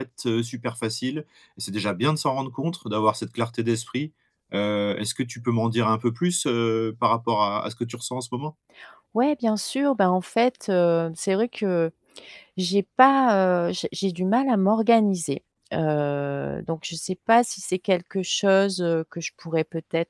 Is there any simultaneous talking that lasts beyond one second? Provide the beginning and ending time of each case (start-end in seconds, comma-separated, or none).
none